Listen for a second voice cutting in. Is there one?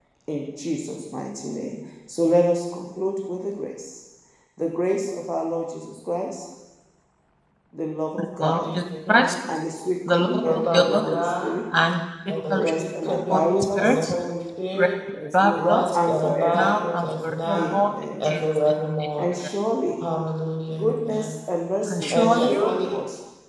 Yes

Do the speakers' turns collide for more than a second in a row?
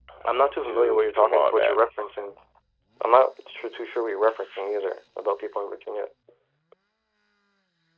Yes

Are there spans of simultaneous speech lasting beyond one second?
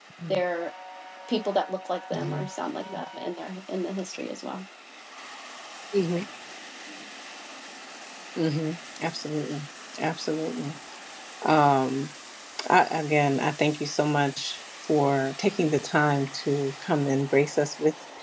No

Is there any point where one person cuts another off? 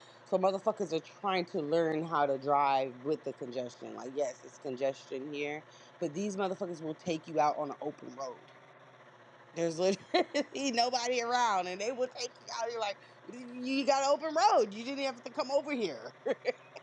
No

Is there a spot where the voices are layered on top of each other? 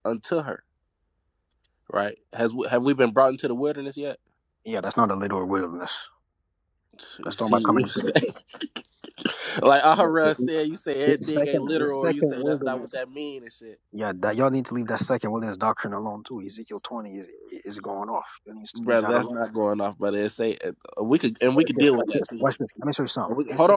Yes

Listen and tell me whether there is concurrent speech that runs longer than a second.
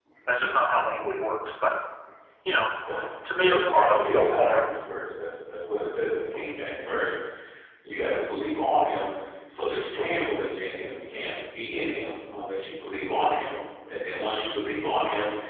Yes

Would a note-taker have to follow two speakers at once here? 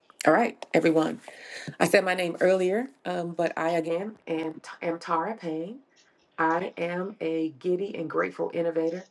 No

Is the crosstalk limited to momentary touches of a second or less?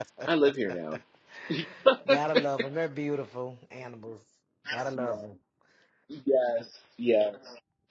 Yes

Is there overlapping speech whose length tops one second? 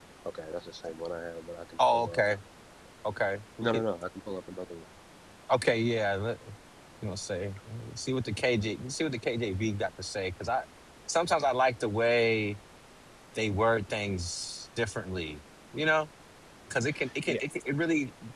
No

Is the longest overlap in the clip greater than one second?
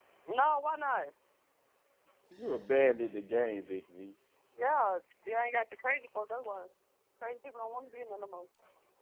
No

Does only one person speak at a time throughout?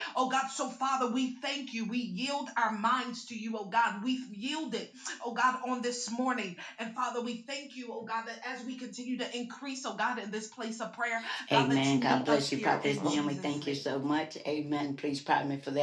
No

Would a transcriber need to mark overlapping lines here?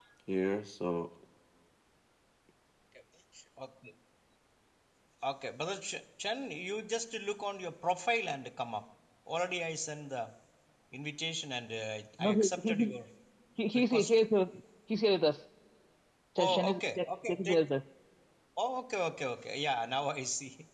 Yes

